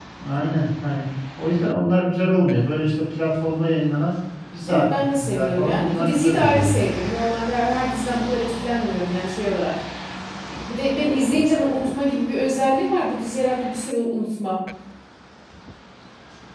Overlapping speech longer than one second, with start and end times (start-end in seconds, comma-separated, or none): 4.7-6.8